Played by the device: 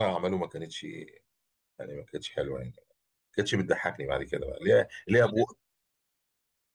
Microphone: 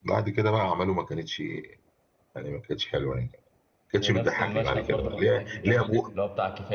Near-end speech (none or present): present